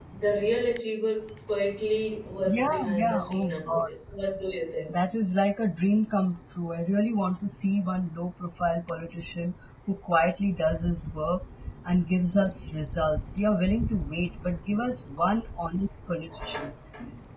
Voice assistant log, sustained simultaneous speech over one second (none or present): present